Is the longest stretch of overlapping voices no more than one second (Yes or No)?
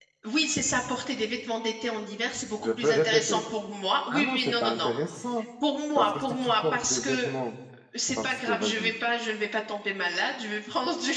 No